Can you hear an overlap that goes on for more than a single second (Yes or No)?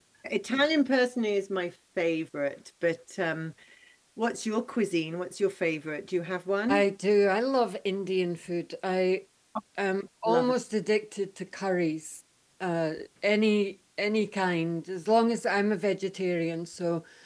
No